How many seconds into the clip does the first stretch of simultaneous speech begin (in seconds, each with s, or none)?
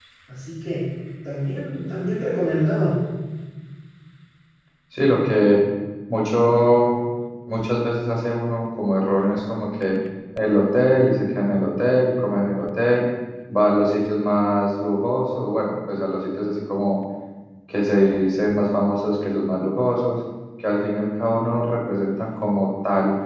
none